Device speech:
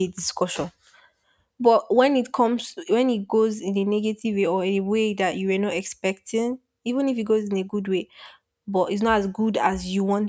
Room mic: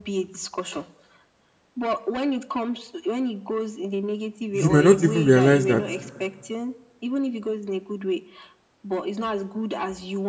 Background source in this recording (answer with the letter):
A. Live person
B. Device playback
B